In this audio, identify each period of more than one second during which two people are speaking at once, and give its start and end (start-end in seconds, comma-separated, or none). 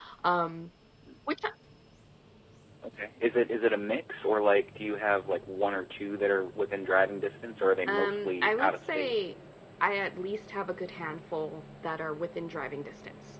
7.9-9.1